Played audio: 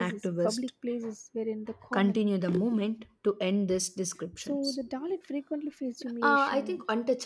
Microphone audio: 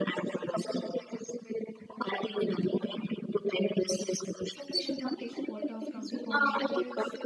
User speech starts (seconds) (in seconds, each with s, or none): 4.7 s